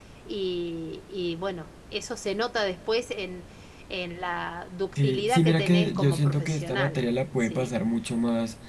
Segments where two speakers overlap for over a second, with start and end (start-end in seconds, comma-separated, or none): 5.0-7.0